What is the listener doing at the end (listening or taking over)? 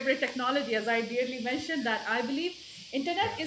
listening